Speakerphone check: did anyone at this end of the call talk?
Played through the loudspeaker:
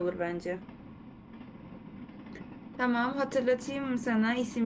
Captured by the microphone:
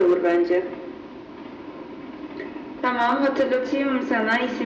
No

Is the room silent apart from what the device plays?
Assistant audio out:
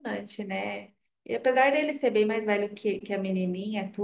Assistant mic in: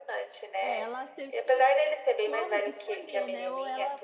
No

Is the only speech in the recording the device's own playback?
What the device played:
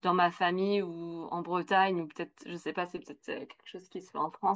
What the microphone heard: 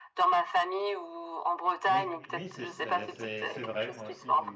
No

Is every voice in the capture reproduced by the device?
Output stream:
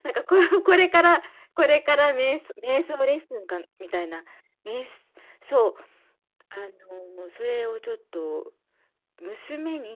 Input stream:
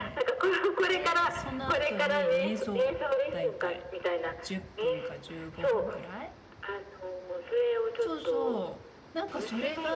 No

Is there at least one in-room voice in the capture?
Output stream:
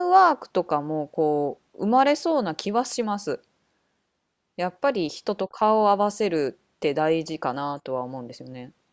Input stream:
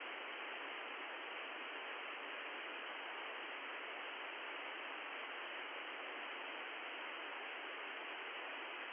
No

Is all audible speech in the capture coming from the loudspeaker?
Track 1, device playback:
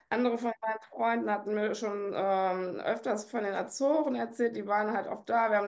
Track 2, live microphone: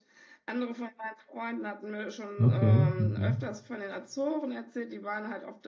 No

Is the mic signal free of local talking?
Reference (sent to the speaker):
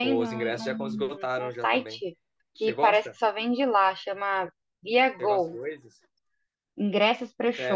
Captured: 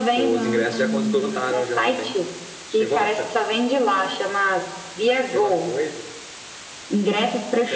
Yes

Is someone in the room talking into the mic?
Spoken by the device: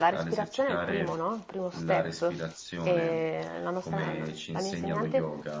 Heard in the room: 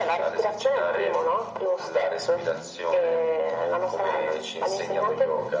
No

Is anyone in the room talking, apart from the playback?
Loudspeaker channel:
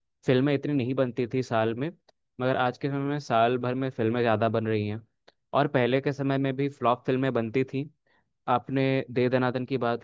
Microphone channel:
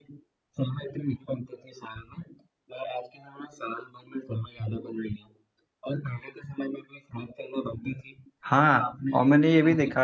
Yes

